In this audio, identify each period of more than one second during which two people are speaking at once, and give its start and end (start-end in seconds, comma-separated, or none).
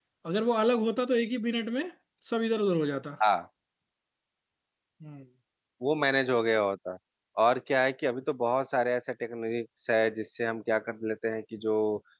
none